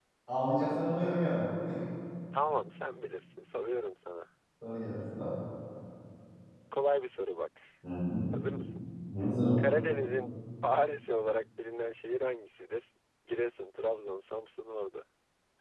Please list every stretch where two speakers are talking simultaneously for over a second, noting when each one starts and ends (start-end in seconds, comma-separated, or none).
none